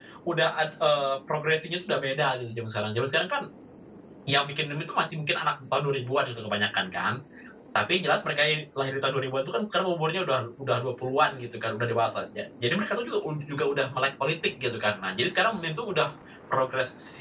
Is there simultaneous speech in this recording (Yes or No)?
No